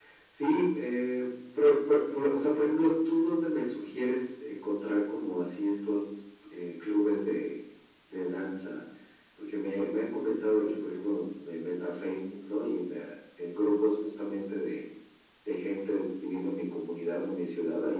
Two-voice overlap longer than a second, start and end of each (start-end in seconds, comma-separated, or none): none